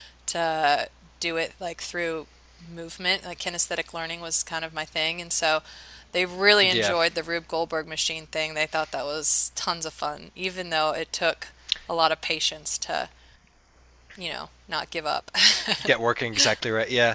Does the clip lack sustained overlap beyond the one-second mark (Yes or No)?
Yes